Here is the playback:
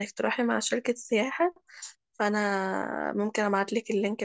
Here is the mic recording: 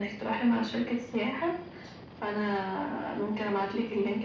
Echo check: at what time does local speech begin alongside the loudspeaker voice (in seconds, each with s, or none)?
none